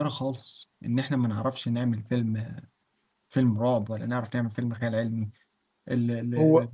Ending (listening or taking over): taking over